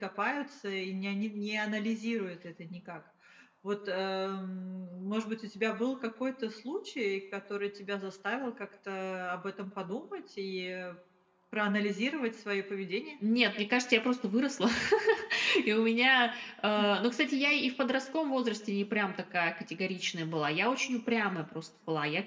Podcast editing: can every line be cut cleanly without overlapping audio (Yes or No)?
Yes